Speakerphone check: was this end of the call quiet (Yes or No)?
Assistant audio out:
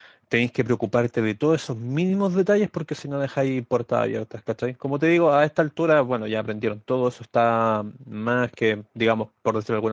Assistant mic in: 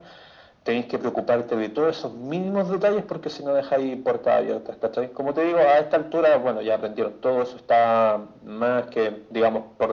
Yes